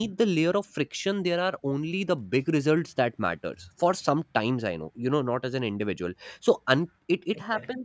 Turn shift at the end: No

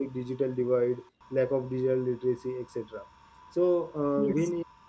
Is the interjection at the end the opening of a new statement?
No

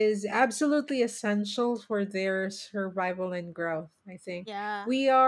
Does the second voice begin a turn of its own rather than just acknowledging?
No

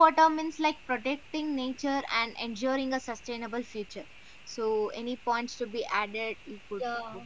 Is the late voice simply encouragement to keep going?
No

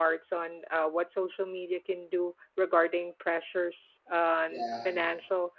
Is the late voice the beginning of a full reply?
No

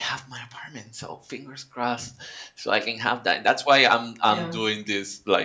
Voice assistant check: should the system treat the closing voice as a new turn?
No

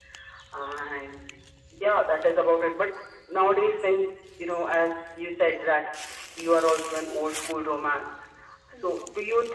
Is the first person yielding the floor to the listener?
No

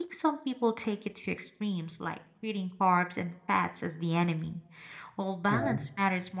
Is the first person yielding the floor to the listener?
No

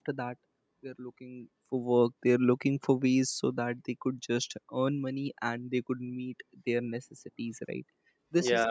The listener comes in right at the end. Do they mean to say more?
No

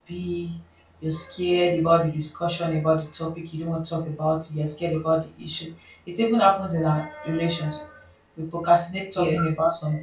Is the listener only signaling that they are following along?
Yes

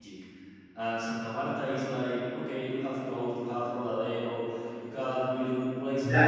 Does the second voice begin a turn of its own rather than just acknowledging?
Yes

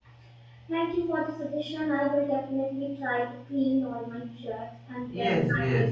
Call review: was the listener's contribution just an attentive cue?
No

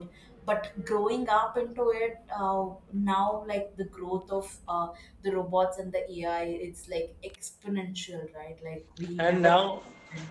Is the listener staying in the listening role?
No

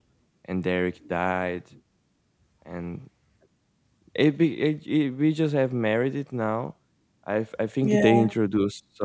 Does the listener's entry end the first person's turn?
No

